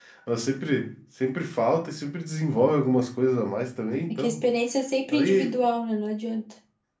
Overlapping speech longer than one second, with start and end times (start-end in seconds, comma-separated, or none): none